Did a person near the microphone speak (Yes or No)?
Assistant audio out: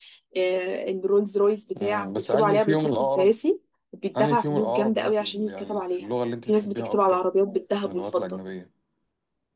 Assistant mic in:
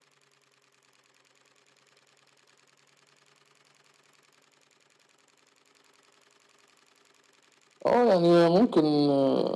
Yes